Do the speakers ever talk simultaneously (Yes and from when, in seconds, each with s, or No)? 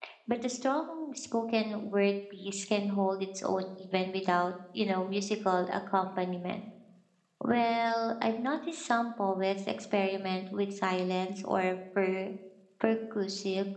No